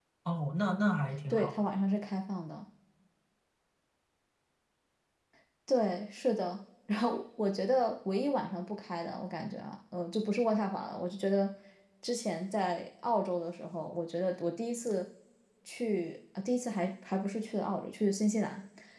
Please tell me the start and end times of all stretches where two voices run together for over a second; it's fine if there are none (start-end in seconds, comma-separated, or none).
none